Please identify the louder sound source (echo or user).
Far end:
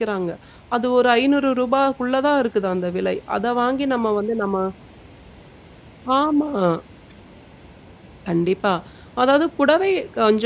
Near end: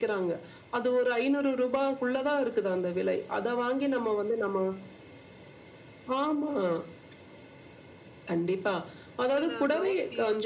echo